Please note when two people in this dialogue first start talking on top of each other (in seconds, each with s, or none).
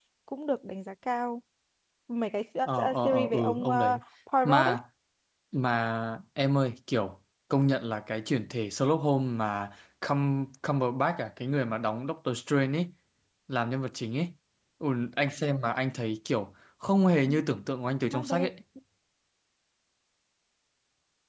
2.6 s